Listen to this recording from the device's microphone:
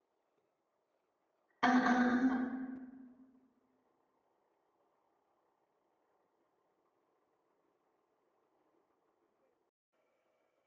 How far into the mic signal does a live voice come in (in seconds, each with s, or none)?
1.6 s